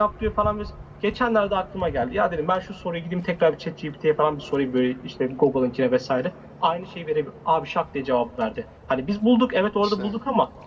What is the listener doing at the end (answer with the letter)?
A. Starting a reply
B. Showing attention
B